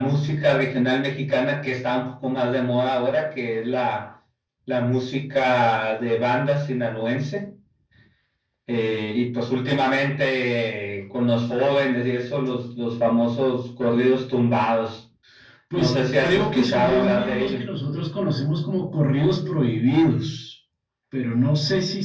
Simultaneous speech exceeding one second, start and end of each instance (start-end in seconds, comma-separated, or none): 15.8-17.6